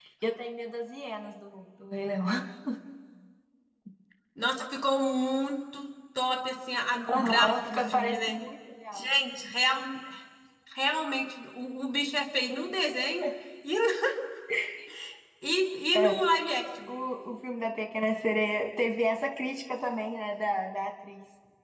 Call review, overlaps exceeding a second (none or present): present